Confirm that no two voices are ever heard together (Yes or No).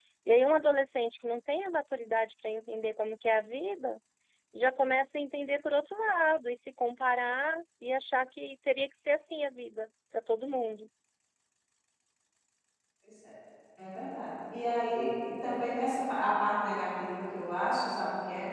Yes